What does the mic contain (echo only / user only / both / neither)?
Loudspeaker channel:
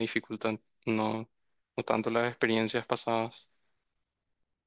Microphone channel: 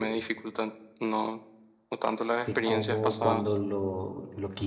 both